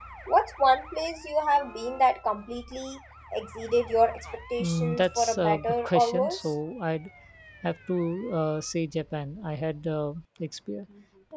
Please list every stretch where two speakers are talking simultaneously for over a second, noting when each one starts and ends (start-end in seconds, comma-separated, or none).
4.6-6.5